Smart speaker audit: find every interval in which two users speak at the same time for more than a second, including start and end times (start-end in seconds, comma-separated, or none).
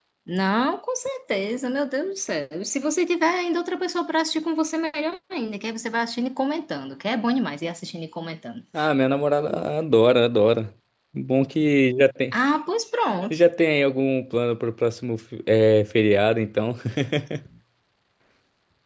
none